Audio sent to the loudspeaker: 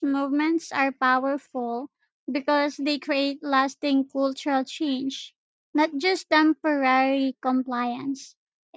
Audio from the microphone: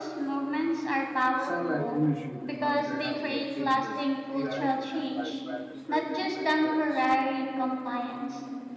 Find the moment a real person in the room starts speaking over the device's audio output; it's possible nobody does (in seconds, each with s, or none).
1.4 s